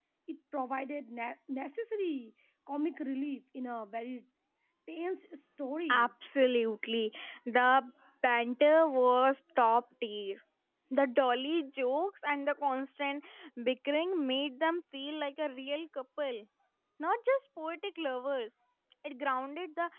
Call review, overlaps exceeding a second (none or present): none